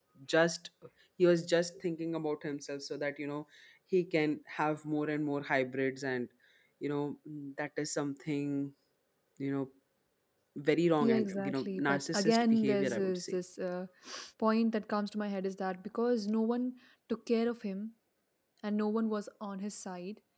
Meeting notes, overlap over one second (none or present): present